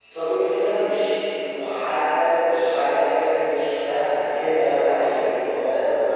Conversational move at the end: taking over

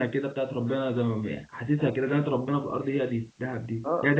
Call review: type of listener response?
taking over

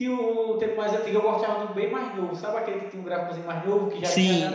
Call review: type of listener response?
listening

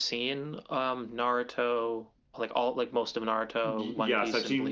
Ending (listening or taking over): taking over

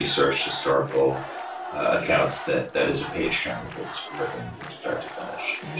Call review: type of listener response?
listening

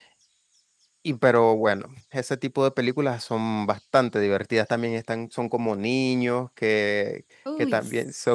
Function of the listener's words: listening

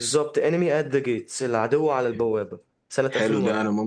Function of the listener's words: taking over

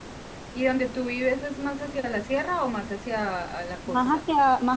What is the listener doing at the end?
taking over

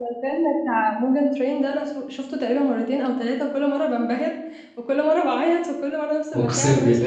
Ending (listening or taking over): taking over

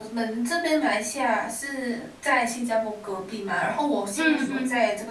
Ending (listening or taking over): listening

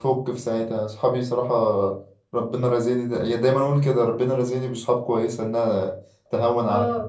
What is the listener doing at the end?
taking over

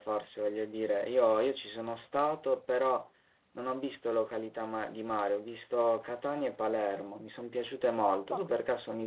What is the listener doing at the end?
listening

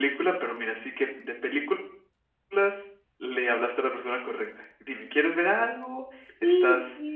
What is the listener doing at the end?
taking over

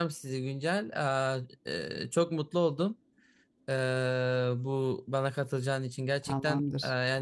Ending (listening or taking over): listening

